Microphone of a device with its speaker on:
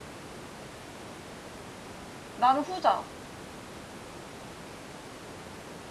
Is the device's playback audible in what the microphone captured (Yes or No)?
No